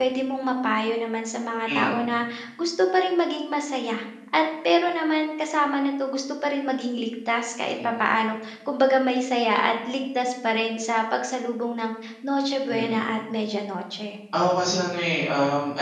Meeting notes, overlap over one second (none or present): none